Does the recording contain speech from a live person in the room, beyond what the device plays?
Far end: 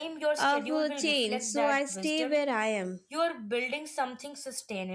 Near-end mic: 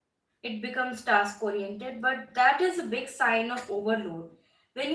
Yes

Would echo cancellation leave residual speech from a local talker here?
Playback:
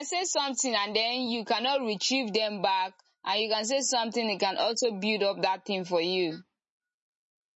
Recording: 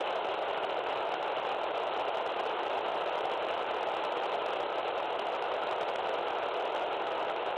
No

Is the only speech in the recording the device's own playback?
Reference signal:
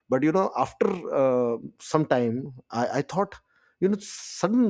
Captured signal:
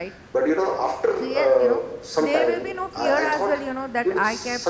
No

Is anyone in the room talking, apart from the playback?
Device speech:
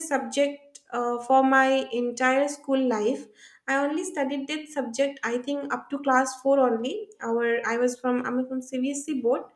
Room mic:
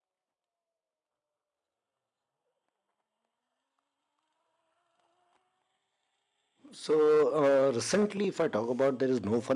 Yes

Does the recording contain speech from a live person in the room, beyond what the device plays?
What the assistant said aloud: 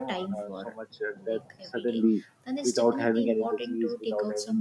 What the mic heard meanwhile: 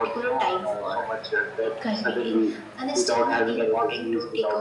Yes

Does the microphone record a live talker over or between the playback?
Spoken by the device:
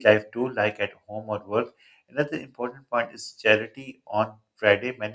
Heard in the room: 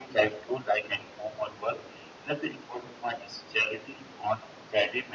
No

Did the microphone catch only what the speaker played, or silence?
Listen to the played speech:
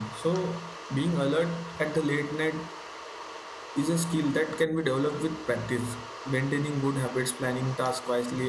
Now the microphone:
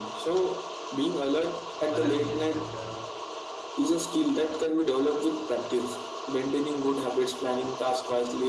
No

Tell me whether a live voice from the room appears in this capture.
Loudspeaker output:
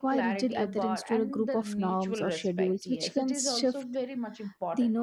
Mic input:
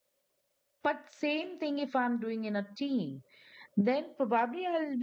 Yes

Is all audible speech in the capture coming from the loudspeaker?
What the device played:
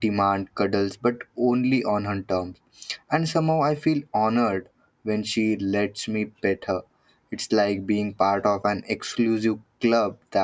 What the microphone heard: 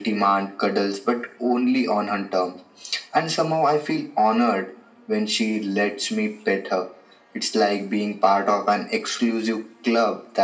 Yes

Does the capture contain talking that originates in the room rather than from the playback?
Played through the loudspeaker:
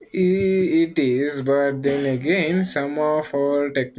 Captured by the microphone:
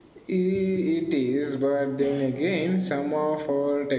No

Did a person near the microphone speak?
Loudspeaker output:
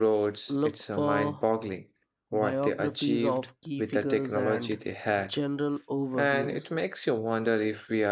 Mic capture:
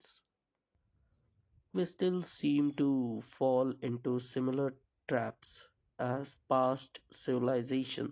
Yes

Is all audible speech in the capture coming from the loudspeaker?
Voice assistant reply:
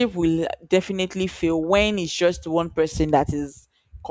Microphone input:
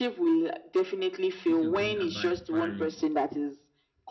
No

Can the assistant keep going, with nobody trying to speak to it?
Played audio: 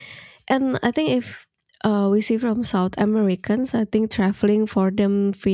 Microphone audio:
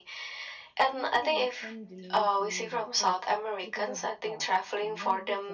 No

